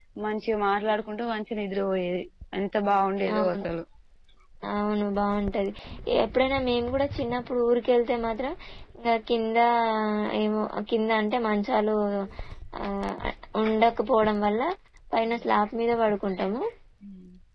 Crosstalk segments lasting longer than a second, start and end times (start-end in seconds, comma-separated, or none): none